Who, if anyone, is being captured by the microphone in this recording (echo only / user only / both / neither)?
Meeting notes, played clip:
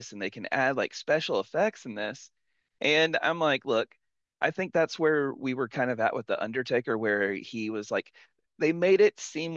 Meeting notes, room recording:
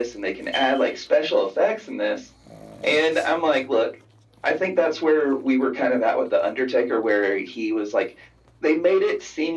echo only